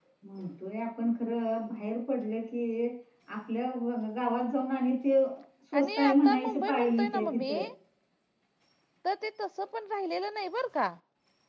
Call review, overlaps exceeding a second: present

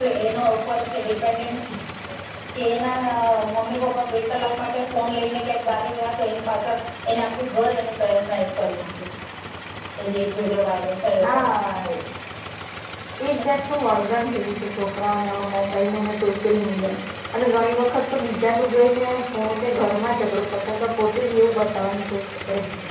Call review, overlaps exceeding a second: none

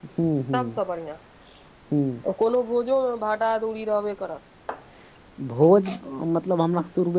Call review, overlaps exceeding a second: none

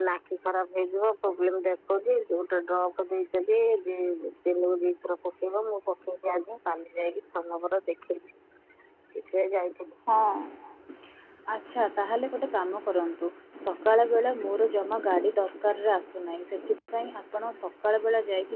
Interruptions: none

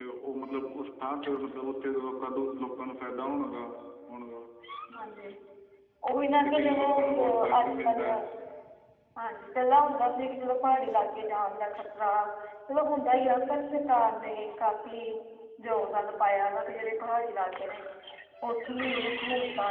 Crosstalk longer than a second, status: present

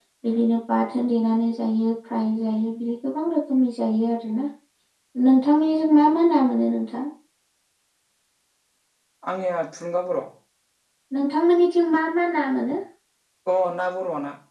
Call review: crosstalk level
none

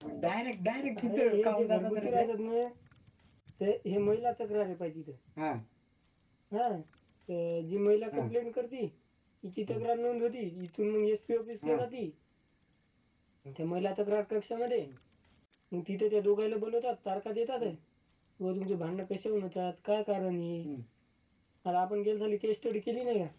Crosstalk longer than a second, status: present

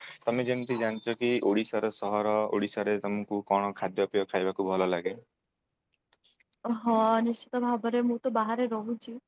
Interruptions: none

